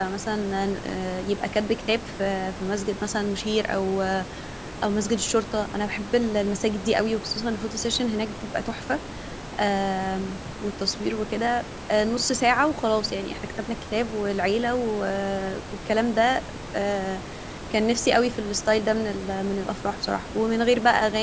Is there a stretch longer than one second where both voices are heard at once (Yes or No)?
No